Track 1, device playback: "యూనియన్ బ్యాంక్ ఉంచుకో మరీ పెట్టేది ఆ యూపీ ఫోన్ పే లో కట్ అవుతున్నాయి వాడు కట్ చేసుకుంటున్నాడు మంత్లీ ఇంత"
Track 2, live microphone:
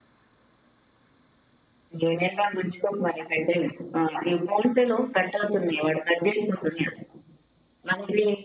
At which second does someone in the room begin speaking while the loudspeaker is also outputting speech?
none

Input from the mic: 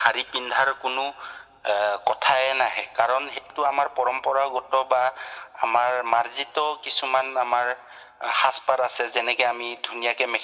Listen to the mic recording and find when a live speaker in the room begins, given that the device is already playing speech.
none

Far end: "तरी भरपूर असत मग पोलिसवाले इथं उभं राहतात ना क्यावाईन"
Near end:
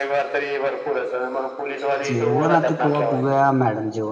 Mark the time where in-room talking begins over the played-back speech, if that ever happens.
2 s

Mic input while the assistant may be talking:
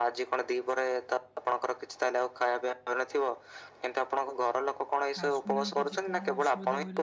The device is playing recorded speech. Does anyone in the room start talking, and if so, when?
5 s

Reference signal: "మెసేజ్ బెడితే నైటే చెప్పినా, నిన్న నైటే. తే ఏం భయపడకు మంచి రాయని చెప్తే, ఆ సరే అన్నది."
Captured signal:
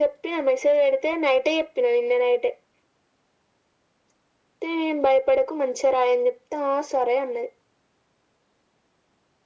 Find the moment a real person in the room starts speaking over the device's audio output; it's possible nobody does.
none

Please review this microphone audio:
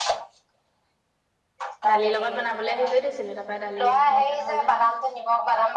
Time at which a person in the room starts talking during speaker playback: 2 s

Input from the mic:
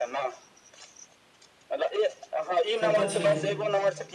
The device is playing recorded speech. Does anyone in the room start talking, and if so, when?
3 s

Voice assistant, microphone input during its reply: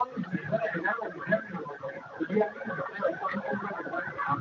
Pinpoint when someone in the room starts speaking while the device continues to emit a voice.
none

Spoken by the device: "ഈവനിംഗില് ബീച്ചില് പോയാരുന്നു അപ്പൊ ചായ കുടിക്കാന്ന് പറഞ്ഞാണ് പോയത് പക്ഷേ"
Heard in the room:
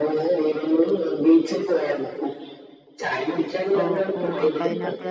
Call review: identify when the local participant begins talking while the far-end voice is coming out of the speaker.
4 s

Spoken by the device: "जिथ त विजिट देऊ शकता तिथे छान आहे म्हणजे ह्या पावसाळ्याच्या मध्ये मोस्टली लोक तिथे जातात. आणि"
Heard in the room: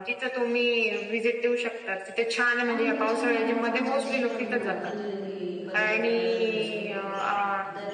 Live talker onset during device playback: 3 s

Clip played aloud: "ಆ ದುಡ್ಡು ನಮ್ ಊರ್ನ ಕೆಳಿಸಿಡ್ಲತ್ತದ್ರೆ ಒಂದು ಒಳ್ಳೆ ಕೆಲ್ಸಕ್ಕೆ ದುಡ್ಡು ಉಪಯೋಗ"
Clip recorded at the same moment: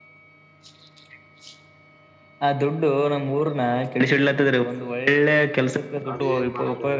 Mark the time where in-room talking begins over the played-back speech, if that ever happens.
6 s

